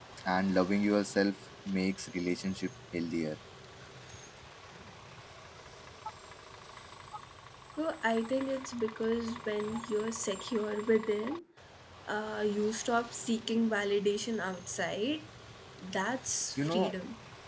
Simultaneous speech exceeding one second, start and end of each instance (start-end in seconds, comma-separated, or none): none